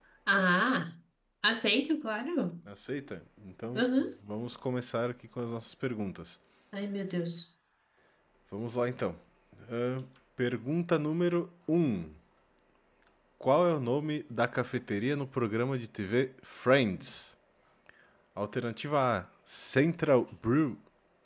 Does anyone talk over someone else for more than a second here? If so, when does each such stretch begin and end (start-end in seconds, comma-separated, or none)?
none